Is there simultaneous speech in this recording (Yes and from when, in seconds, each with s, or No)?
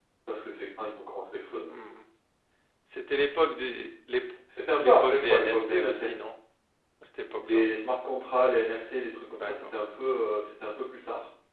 Yes, from 4.8 s